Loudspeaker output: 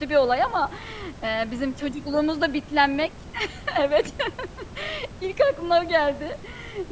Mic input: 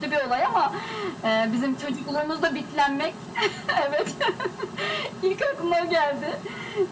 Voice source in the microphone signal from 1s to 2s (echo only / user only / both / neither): echo only